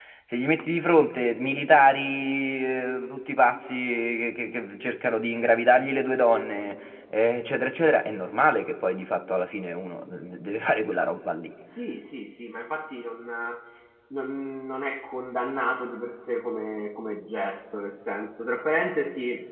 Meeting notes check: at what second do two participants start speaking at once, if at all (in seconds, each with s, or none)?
none